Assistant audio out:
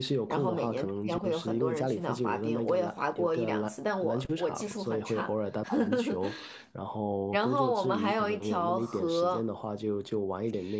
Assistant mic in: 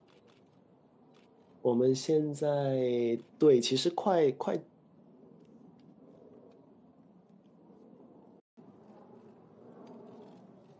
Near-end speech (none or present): present